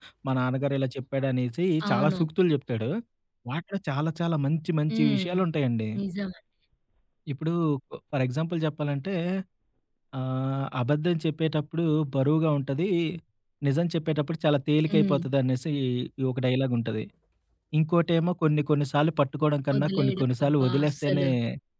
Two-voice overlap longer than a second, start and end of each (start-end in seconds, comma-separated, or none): 19.8-21.2